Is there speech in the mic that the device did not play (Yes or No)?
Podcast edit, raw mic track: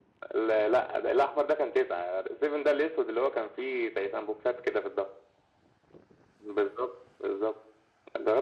No